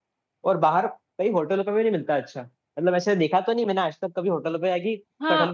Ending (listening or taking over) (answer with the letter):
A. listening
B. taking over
B